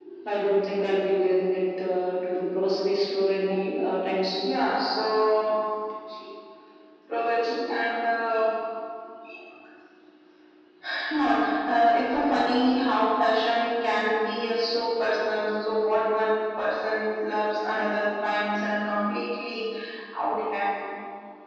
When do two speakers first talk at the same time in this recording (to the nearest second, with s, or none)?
none